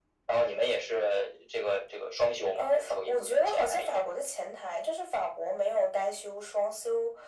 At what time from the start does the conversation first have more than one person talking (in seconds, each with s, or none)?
2.5 s